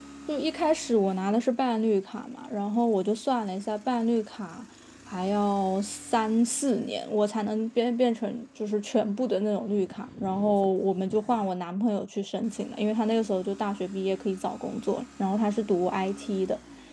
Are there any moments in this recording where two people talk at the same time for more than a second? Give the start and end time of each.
none

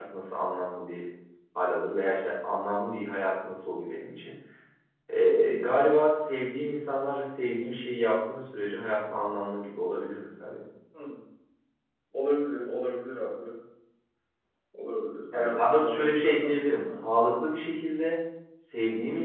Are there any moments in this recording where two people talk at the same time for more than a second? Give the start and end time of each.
15.3-17.0

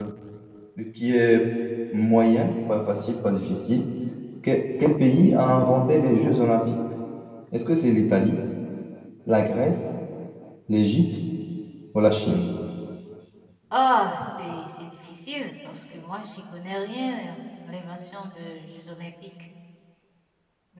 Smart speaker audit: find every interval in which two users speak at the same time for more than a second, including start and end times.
none

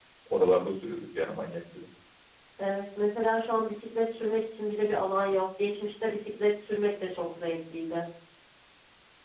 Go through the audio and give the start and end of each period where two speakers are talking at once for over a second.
none

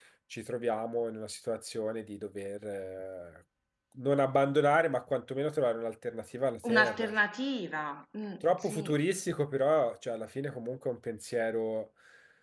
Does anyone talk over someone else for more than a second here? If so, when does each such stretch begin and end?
none

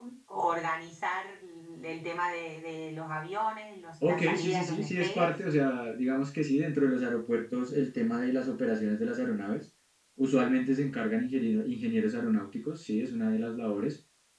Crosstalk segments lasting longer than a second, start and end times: 4.0-5.4

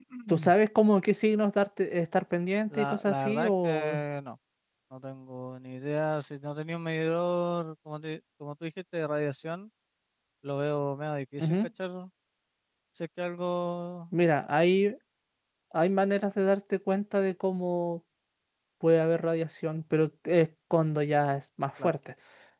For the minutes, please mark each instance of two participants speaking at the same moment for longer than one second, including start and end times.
2.7-4.0

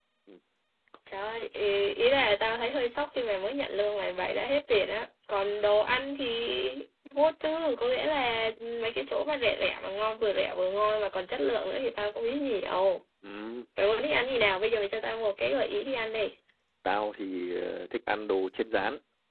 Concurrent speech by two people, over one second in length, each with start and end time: none

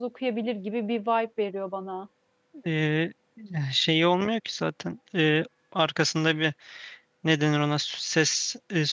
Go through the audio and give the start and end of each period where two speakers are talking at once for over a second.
none

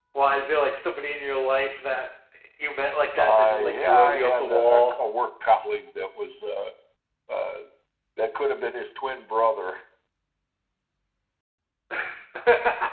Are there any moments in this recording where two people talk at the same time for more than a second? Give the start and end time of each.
3.2-4.9

